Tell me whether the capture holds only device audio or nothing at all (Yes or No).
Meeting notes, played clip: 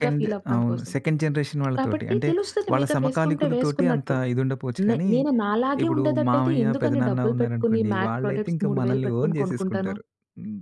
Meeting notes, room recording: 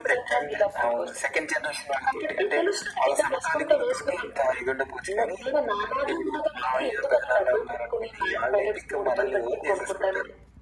Yes